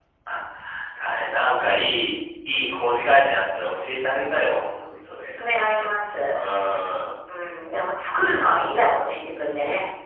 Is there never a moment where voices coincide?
Yes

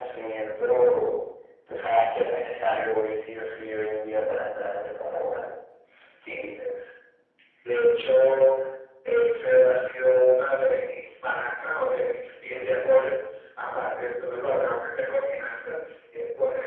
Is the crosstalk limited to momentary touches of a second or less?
Yes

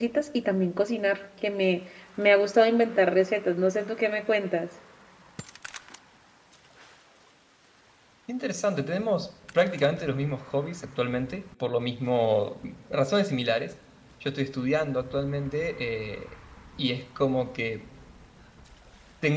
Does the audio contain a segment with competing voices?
No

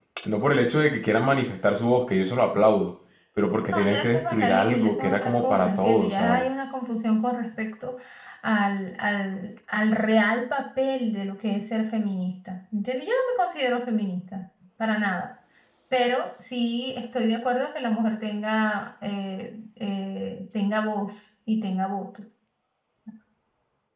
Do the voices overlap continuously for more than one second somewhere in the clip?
Yes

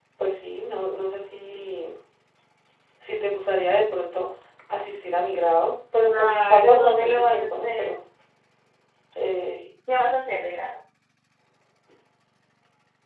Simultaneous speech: Yes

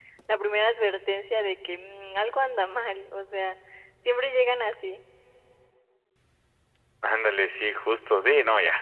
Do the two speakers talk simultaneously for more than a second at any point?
No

